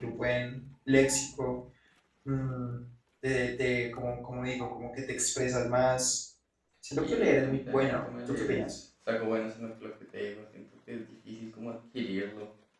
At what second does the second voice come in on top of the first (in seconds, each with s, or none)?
7.0 s